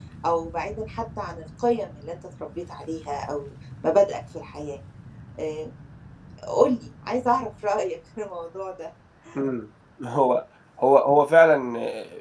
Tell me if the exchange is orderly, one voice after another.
Yes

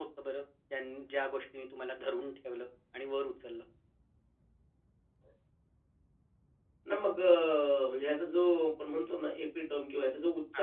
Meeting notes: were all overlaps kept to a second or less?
Yes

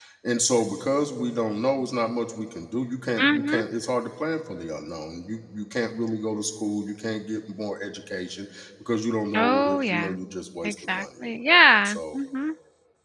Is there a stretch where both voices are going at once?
Yes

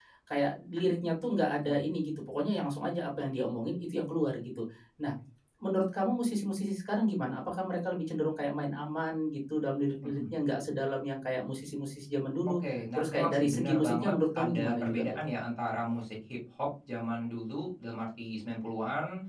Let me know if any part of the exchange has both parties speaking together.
Yes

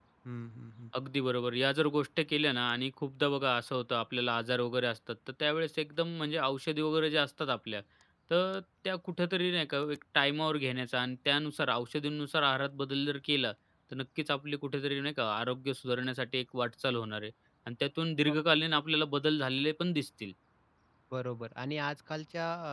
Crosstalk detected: No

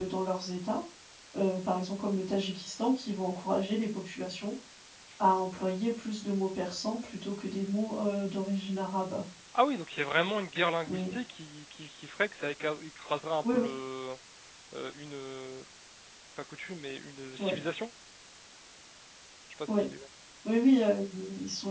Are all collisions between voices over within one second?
Yes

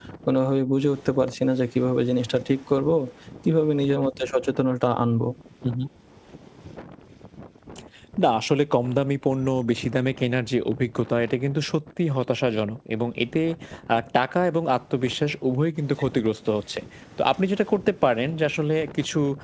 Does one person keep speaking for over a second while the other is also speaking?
No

